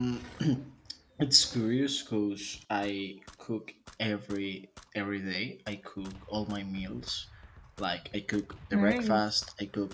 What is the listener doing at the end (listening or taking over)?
listening